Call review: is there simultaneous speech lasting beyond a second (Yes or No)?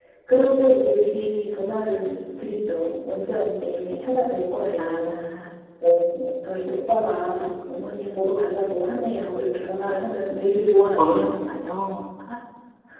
No